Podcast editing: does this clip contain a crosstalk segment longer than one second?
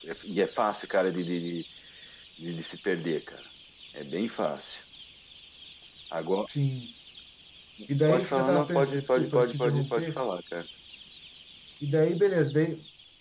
Yes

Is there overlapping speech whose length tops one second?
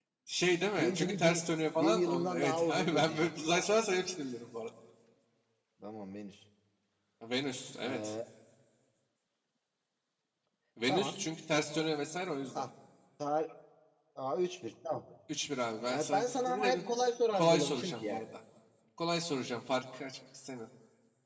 Yes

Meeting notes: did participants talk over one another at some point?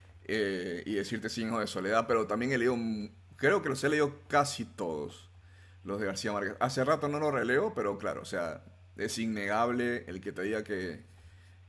No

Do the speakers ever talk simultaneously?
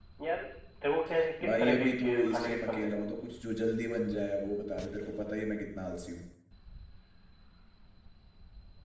Yes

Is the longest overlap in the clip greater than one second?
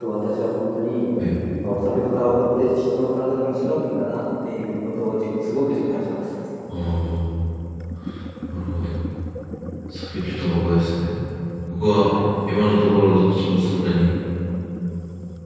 No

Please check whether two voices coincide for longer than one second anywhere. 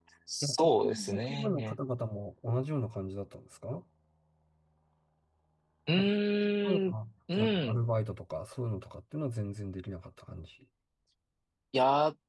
Yes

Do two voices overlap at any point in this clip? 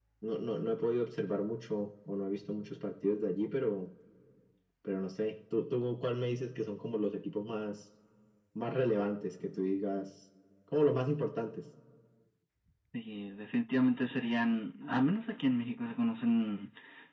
No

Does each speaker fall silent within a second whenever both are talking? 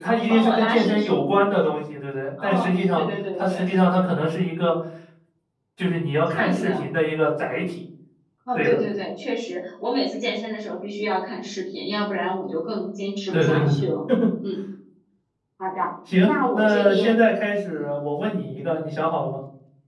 No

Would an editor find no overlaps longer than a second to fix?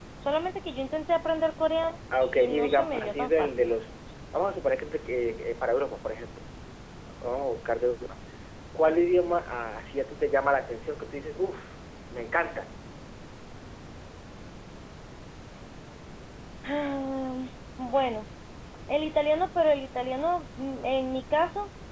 No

